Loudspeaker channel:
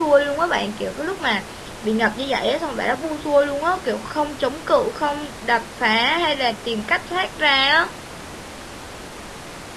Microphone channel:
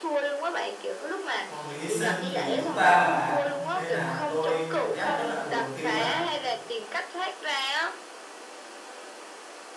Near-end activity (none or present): present